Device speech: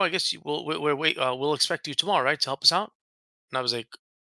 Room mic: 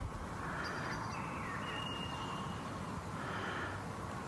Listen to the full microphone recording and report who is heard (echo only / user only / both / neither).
neither